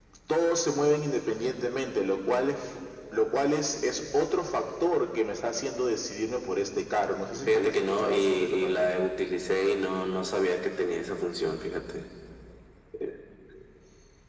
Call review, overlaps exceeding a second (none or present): present